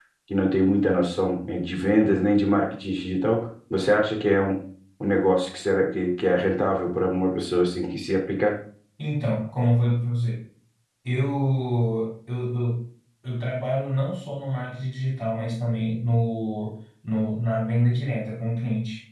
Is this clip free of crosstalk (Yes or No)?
Yes